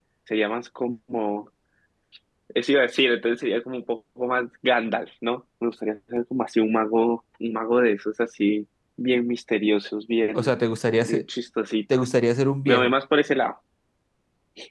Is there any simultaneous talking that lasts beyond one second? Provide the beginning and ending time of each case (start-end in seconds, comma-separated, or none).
none